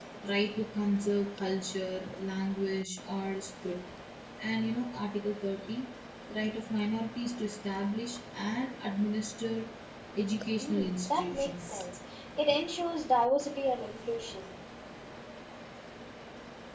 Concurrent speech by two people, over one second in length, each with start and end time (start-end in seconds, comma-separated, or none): 10.6-11.8